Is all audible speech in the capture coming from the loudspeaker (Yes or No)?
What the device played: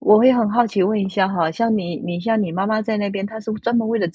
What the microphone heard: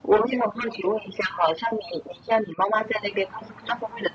Yes